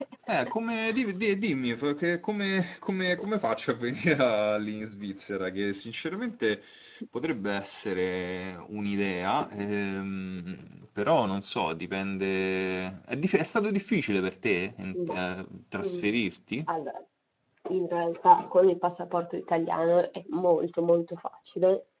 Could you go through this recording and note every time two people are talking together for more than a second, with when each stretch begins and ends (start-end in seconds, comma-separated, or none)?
none